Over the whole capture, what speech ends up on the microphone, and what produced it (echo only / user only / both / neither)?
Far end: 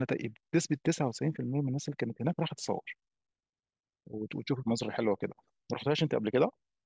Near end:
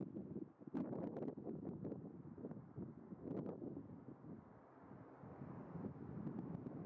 neither